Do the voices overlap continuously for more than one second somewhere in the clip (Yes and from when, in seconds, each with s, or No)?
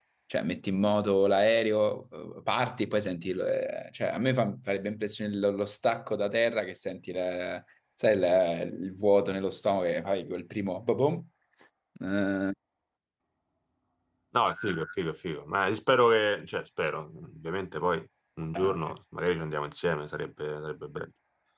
No